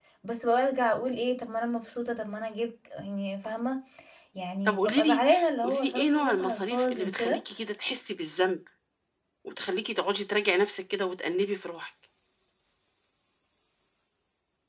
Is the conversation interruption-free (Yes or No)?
No